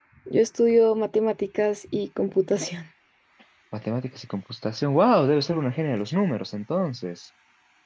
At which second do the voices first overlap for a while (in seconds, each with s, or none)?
none